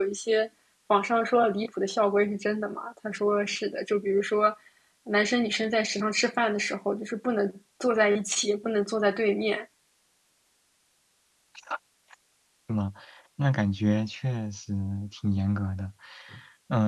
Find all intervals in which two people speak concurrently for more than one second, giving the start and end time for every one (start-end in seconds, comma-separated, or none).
none